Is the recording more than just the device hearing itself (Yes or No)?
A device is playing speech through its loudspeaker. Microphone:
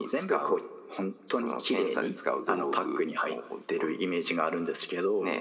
No